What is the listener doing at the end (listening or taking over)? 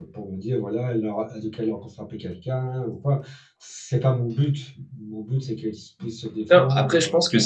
taking over